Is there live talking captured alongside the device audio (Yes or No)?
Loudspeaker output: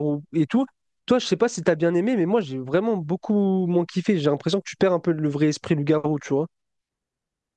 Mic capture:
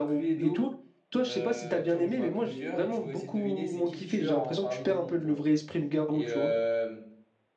Yes